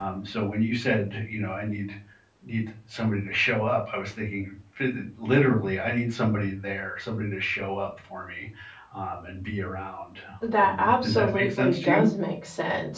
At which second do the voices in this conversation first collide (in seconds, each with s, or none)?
10.6 s